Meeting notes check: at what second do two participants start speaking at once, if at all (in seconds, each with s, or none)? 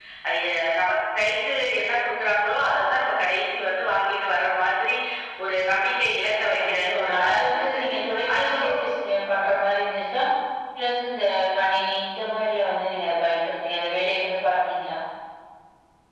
6.6 s